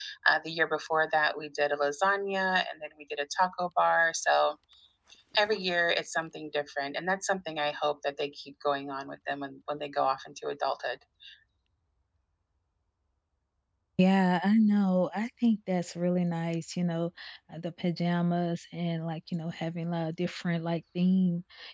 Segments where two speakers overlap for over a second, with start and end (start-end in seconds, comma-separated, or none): none